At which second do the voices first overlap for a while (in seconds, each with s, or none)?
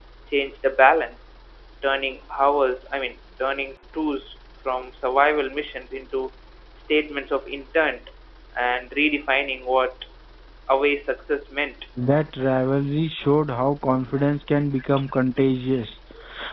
none